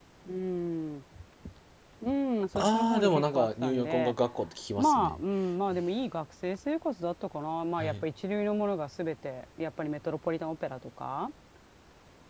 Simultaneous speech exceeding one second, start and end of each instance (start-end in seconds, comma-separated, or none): 2.5-4.1